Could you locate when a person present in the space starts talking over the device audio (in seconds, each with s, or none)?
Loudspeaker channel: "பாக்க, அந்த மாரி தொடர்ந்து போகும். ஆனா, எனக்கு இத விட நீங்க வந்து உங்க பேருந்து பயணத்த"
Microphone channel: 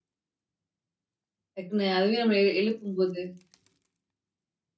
1.6 s